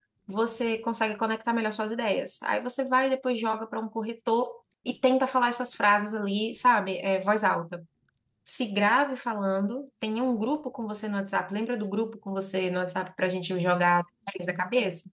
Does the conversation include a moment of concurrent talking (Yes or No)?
No